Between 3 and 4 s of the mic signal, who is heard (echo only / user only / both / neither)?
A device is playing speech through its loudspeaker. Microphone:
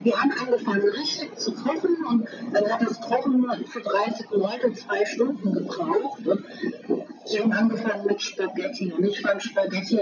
echo only